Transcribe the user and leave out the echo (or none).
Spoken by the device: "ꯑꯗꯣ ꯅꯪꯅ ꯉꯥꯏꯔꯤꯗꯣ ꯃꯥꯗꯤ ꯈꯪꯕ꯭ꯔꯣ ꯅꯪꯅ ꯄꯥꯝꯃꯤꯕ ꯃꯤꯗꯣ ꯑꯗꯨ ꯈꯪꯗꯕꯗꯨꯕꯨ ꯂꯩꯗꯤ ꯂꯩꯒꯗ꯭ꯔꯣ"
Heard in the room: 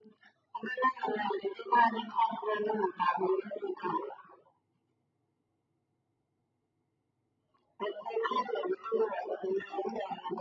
none